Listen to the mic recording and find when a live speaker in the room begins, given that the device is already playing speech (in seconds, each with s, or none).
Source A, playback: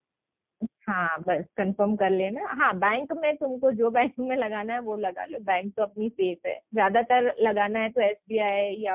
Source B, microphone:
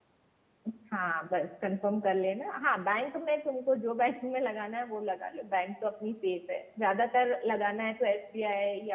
none